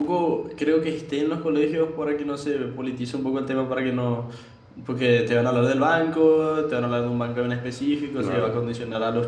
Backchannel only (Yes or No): Yes